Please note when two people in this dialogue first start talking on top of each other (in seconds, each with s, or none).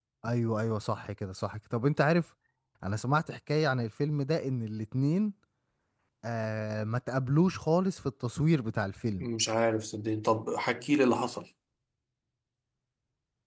none